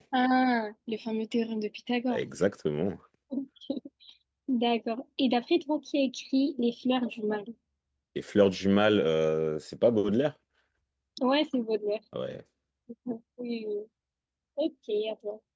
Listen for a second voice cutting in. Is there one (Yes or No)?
No